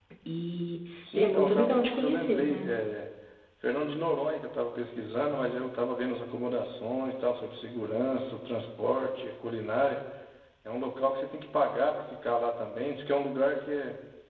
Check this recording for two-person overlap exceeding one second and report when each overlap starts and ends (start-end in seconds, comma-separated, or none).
1.1-2.7